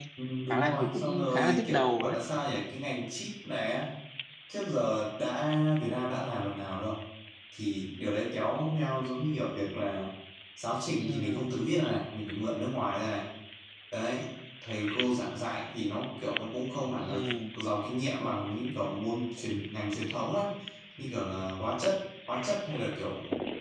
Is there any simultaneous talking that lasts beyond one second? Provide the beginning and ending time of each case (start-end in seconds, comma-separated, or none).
0.5-2.2